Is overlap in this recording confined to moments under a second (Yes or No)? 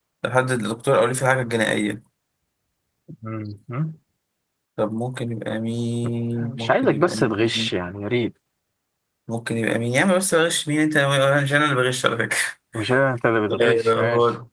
No